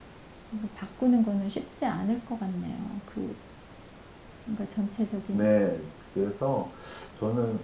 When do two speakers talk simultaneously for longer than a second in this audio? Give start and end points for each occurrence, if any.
none

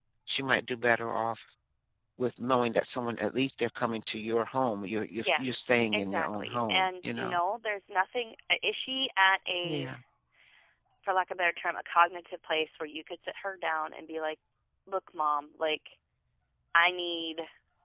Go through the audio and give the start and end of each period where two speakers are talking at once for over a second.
5.2-7.3

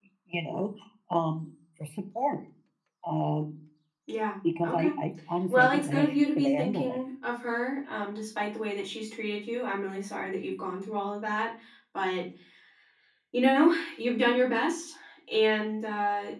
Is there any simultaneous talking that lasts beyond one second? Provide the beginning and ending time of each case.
5.5-7.0

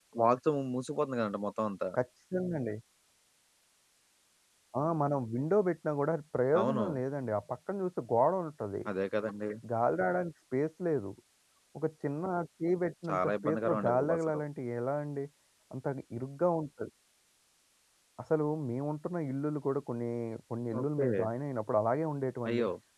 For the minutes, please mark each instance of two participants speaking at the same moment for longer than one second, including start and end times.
13.1-14.4

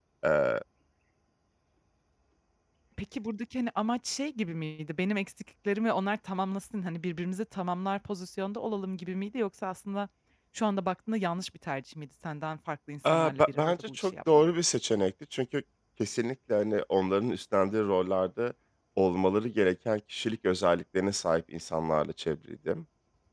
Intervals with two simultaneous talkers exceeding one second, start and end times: 13.0-14.4

